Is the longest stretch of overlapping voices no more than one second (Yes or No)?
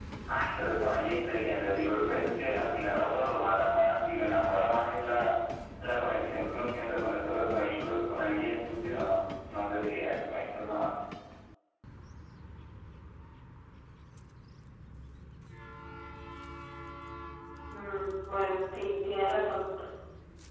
Yes